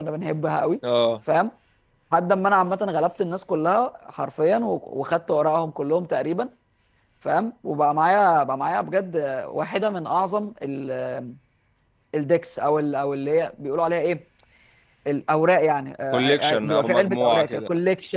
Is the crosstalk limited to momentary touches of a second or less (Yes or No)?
No